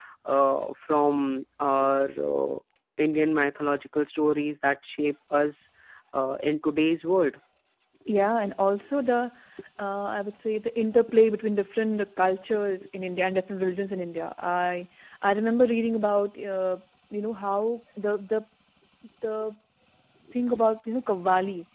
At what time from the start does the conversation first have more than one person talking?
none

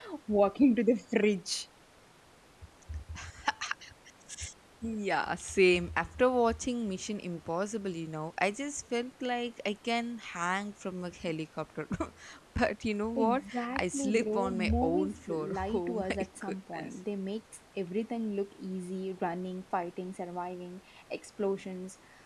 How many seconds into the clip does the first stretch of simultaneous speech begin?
13.2 s

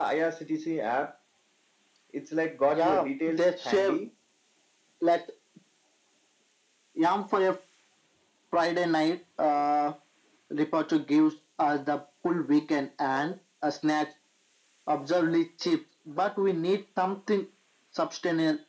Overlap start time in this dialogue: 2.7 s

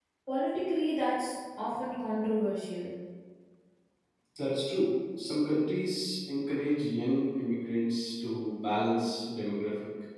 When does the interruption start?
none

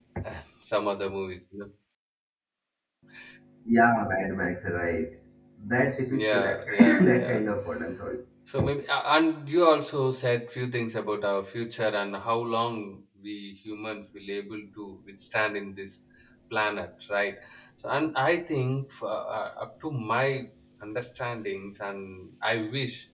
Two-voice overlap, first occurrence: 6.1 s

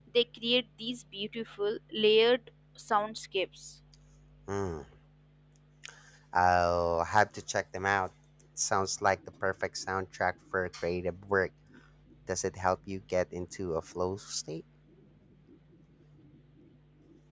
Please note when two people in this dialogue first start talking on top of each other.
none

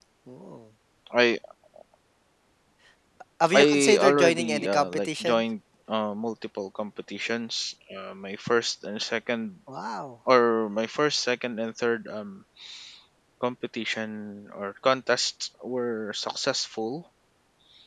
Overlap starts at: 3.6 s

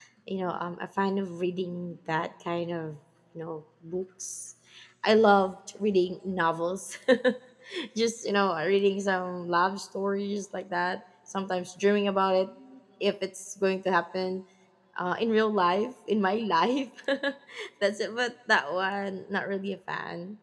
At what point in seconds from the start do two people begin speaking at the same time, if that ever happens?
none

